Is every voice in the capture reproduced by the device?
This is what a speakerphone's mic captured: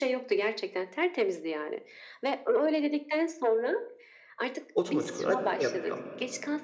No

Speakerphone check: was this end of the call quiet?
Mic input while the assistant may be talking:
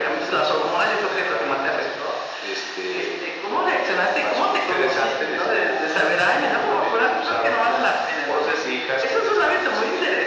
Yes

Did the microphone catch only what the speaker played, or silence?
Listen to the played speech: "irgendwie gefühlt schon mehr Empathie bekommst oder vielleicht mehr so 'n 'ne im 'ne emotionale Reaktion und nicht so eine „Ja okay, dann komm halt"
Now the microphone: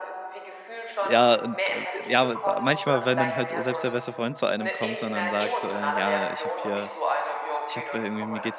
No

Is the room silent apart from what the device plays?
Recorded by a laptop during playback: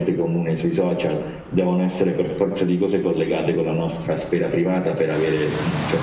Yes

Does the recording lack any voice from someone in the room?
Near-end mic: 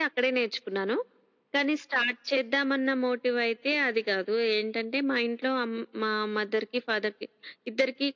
Yes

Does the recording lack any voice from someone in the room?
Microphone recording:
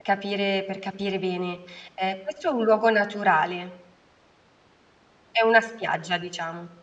No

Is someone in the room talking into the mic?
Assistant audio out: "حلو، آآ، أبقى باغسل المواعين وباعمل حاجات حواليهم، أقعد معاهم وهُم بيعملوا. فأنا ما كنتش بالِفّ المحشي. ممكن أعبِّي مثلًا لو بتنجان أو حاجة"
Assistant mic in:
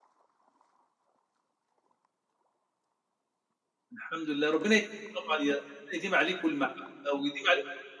Yes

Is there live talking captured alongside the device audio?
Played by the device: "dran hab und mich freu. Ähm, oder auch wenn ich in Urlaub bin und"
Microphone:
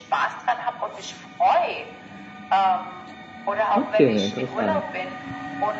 Yes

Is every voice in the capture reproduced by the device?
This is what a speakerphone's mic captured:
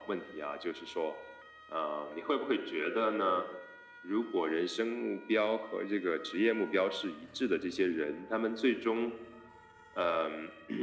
Yes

